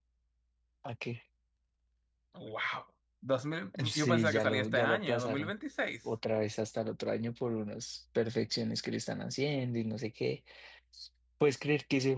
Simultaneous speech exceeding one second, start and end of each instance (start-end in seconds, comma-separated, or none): 3.9-5.5